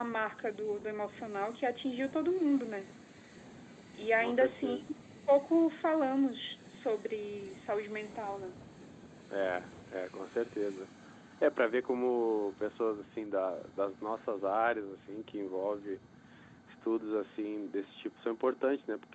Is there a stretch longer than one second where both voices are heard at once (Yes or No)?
No